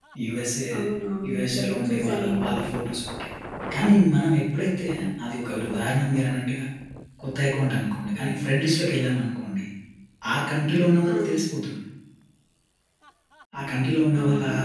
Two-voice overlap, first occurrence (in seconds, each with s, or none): 1.3 s